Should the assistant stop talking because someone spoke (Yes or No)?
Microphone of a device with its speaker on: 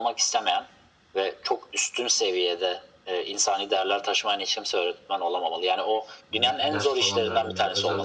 Yes